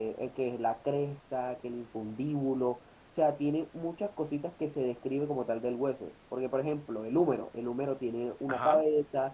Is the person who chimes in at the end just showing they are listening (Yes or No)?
Yes